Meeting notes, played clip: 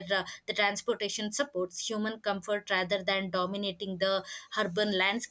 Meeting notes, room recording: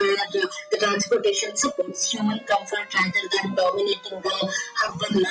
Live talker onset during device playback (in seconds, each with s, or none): none